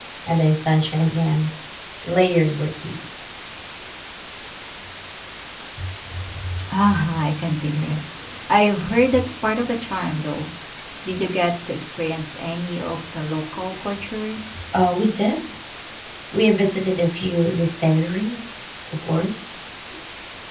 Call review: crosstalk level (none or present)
none